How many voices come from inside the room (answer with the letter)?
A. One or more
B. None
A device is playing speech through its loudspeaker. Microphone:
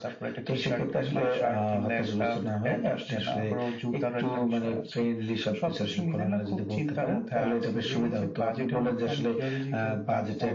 B